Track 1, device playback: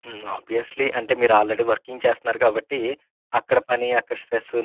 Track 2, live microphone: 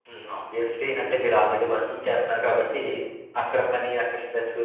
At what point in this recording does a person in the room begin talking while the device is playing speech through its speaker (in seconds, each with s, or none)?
none